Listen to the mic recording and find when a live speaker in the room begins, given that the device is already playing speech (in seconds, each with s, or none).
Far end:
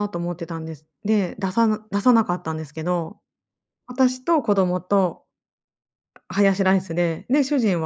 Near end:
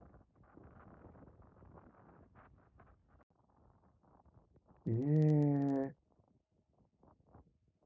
4.9 s